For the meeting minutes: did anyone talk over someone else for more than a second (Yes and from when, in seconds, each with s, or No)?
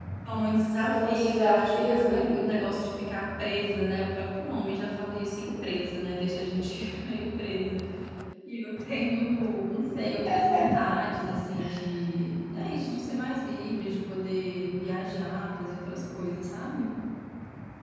Yes, from 0.8 s